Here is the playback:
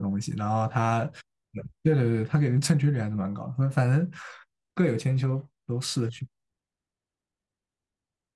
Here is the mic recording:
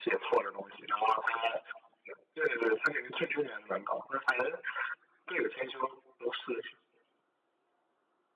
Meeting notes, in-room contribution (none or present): none